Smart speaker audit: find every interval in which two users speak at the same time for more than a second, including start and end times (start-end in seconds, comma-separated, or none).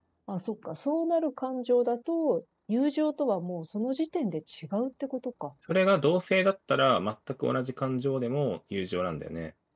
none